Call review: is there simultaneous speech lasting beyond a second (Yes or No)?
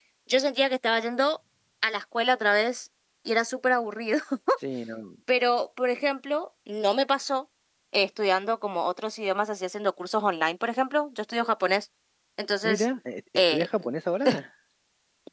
No